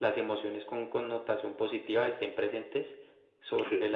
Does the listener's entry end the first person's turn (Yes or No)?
No